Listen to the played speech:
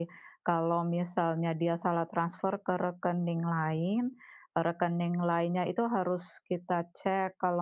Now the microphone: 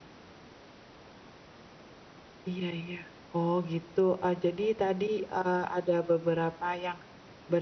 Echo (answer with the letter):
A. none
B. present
A